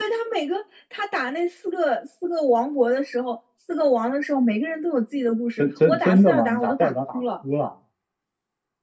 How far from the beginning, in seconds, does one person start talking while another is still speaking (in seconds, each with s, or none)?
5.6 s